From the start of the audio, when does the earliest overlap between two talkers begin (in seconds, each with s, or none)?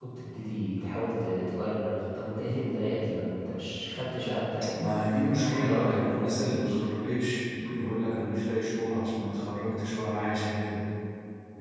5.3 s